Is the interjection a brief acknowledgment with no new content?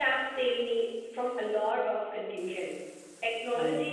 Yes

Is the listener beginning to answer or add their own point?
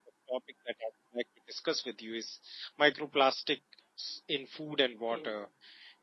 No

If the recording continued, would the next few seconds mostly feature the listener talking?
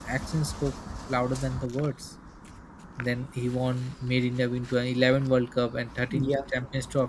No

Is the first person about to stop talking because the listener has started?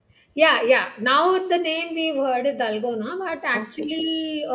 No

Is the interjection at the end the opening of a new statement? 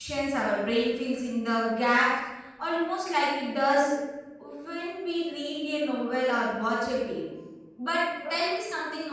No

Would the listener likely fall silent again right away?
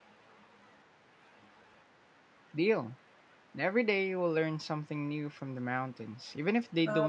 No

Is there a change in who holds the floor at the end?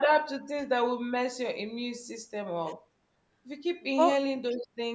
No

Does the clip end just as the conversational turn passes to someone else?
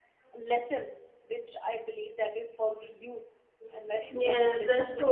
Yes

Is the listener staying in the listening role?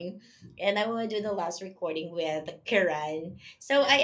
Yes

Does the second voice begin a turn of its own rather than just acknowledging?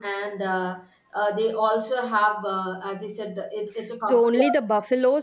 Yes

